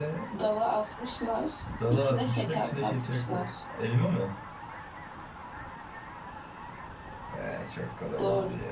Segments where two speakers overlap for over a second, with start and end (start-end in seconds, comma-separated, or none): 1.9-3.5